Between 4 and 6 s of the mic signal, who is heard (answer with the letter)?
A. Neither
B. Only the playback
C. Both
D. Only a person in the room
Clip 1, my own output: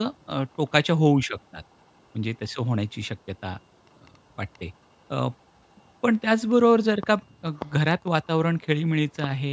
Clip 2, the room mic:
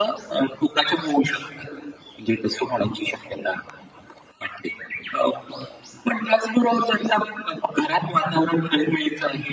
B